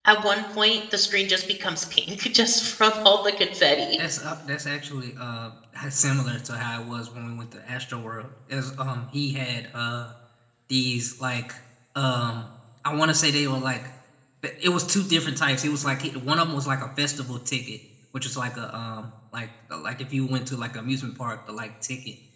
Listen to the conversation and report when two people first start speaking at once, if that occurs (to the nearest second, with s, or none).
none